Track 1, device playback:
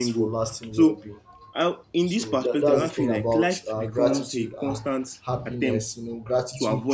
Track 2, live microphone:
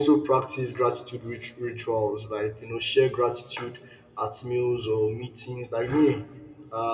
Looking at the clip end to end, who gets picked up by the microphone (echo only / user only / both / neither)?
user only